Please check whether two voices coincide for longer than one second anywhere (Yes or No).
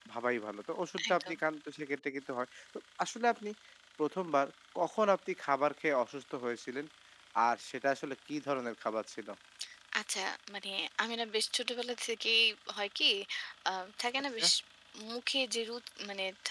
No